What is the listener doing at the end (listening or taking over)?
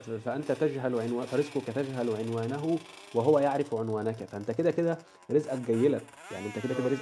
listening